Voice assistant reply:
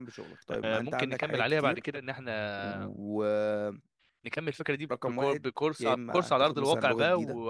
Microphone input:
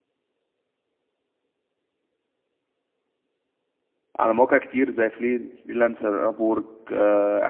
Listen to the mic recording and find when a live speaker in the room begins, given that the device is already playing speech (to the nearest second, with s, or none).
4 s